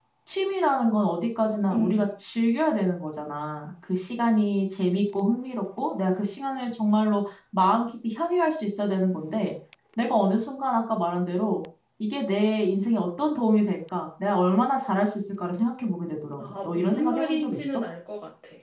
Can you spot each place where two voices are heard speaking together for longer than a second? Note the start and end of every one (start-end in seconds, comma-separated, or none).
16.4-17.8